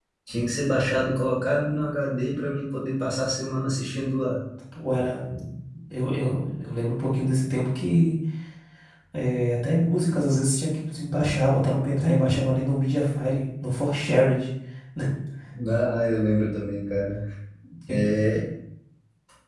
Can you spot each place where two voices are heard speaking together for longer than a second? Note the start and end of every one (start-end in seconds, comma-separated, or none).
none